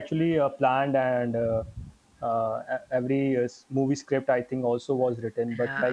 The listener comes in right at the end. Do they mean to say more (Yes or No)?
Yes